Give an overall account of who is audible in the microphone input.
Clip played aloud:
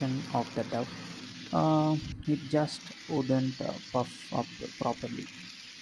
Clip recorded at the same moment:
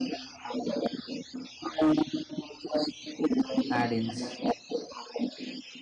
both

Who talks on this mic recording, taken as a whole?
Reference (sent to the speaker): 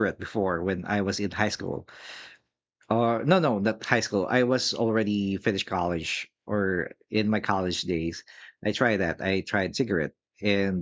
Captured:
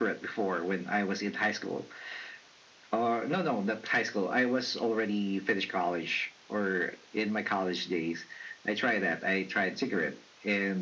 echo only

